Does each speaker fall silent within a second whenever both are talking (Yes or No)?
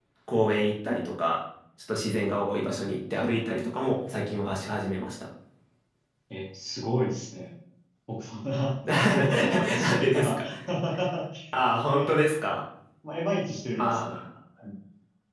No